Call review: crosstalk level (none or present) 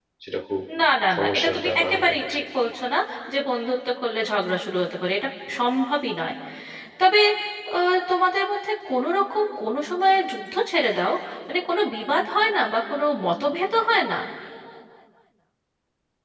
present